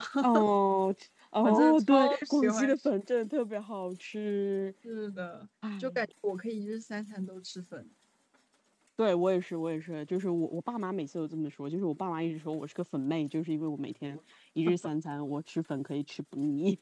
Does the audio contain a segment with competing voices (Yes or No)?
Yes